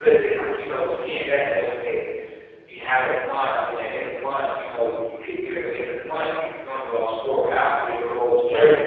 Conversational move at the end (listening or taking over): listening